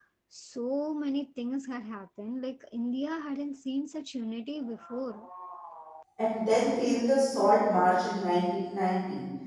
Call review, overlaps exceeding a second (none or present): none